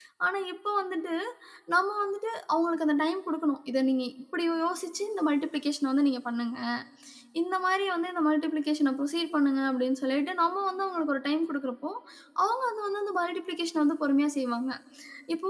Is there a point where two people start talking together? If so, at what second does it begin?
none

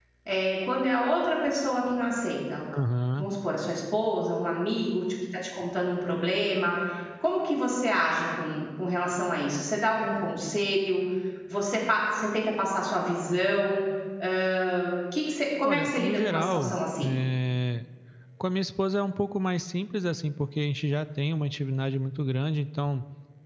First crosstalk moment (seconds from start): 15.6 s

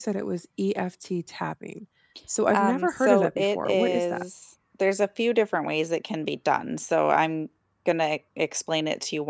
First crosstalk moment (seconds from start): 2.5 s

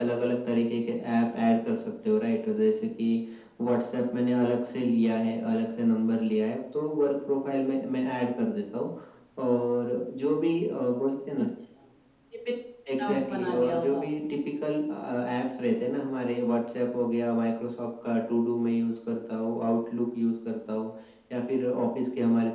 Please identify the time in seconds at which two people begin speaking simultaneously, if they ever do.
13.0 s

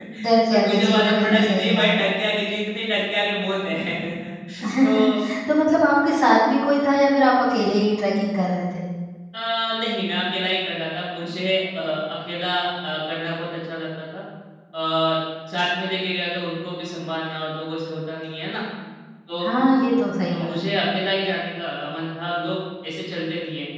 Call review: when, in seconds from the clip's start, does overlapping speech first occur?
0.5 s

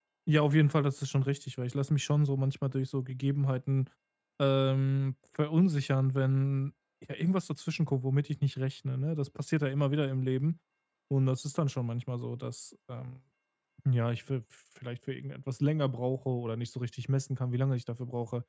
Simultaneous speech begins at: none

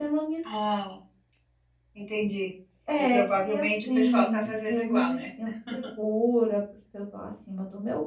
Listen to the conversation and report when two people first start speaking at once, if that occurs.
3.1 s

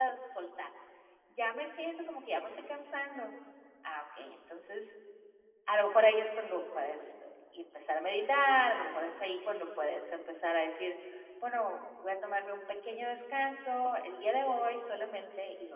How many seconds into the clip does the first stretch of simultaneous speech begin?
none

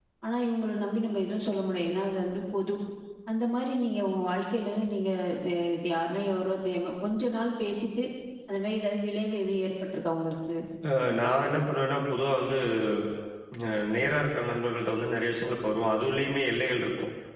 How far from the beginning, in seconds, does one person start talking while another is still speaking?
none

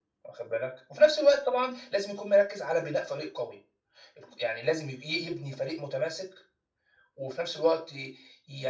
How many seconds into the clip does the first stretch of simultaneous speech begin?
none

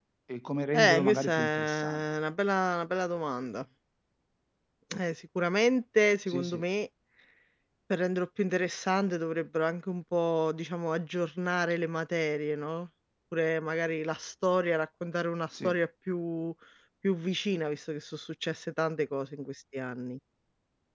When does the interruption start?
0.7 s

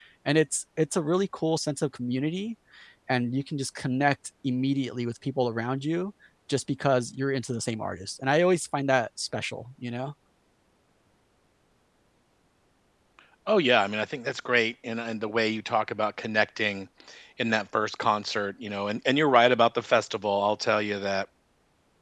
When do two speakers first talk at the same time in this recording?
none

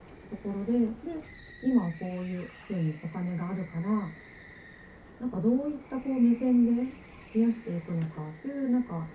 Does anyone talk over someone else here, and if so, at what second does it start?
none

